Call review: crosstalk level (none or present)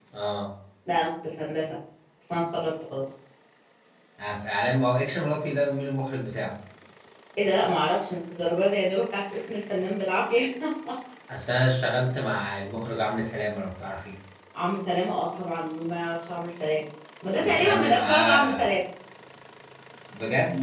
present